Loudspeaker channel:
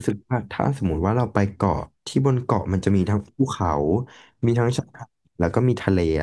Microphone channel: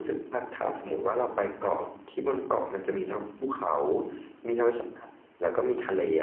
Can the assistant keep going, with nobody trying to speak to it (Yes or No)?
Yes